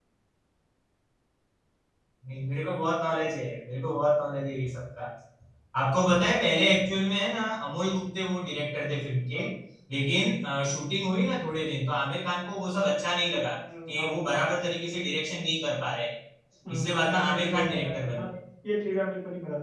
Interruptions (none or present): present